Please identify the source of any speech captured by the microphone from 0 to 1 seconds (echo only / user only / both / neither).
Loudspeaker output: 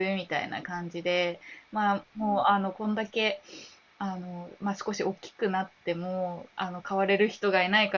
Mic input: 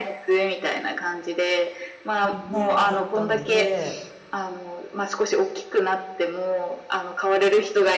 echo only